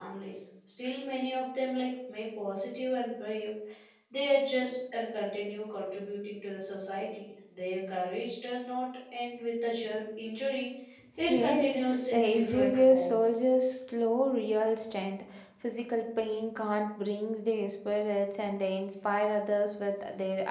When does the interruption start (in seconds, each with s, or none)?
11.3 s